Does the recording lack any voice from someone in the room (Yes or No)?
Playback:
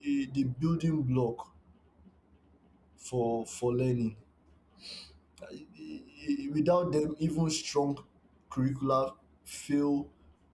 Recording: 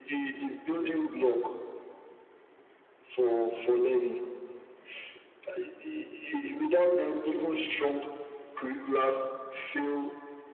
Yes